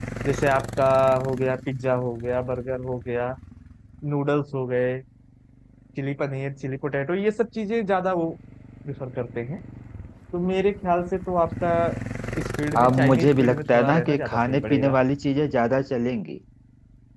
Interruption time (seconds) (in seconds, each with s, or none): 12.7 s